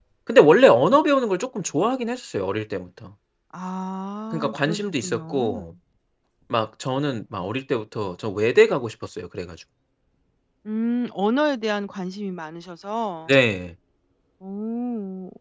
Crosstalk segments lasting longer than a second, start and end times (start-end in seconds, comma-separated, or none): 4.3-5.7